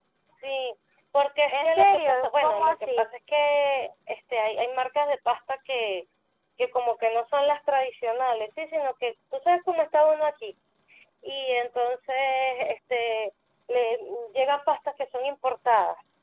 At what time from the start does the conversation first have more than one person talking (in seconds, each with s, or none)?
1.5 s